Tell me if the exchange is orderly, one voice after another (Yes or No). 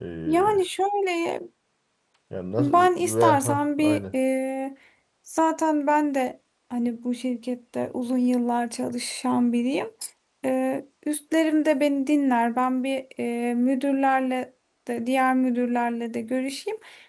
No